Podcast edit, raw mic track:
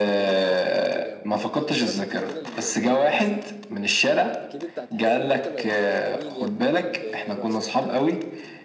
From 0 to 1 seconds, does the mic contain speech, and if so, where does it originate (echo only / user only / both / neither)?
both